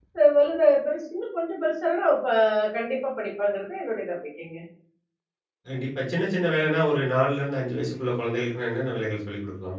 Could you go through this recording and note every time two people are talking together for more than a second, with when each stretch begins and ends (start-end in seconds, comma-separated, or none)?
none